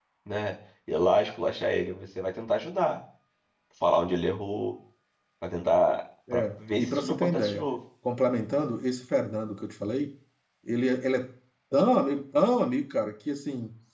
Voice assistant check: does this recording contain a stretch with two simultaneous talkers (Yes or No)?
Yes